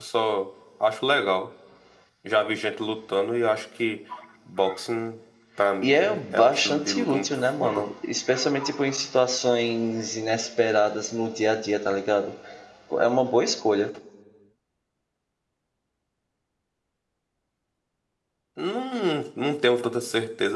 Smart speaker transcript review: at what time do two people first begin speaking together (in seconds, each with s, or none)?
5.8 s